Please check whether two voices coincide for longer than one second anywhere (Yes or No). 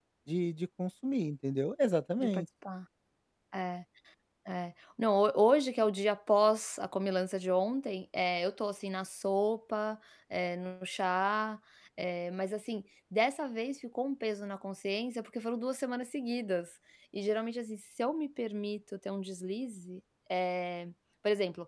No